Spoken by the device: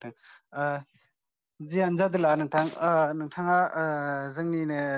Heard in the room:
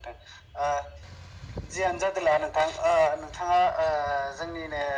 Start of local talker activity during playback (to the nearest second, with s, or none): none